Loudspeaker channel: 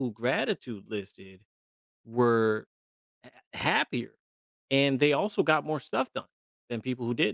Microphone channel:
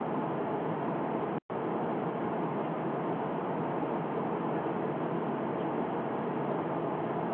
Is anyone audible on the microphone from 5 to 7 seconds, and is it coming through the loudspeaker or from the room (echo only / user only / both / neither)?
neither